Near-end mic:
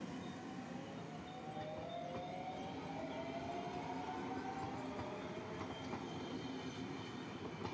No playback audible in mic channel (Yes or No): Yes